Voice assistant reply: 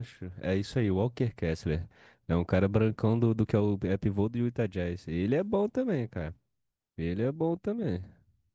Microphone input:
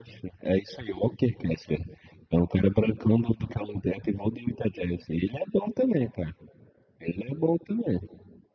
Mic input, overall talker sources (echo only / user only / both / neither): echo only